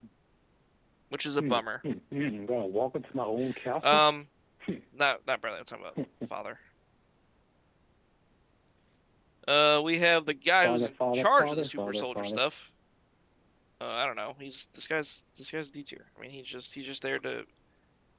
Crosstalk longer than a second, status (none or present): present